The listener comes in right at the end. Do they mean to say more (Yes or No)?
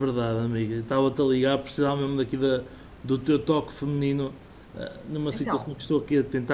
No